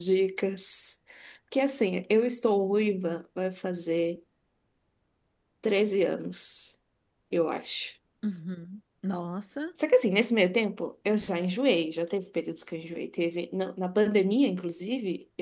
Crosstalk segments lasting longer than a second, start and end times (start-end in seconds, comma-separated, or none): none